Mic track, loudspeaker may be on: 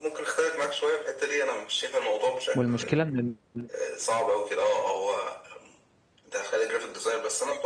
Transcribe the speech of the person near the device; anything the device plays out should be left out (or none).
والمشكله ان ال-